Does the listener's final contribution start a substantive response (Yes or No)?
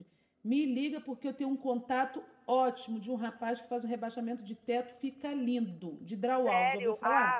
Yes